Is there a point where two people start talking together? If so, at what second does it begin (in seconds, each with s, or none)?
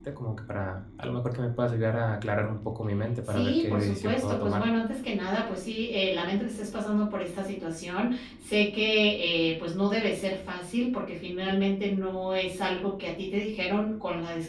3.2 s